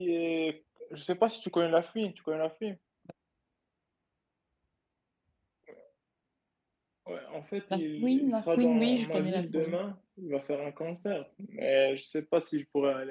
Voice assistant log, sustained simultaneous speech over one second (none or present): present